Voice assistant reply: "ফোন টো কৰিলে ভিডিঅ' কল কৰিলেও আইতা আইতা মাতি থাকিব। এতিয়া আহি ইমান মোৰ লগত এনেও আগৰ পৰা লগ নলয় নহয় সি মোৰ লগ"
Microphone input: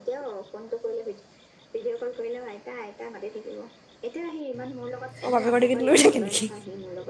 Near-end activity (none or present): present